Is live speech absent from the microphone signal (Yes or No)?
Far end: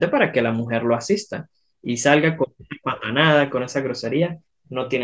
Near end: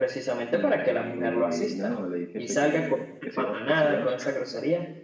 No